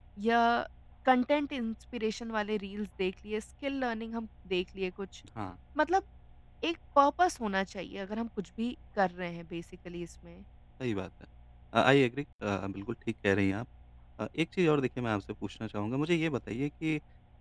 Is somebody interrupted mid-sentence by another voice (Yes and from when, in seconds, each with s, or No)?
No